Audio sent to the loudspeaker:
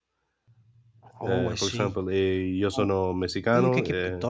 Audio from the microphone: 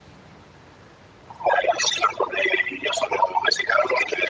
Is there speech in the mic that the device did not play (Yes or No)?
No